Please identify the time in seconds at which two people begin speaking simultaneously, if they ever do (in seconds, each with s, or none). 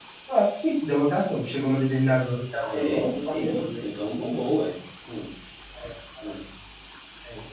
2.6 s